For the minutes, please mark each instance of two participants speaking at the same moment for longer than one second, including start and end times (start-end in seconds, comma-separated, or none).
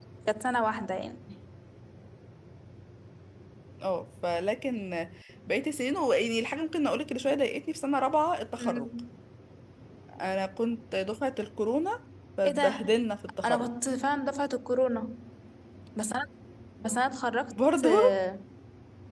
none